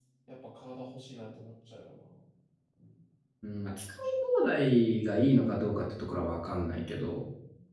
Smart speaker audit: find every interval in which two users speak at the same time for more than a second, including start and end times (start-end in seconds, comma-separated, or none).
none